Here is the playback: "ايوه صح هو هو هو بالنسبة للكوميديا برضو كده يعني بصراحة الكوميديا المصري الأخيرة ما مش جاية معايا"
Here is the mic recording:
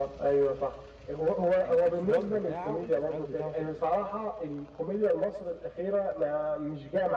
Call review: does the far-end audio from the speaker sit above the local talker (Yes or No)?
Yes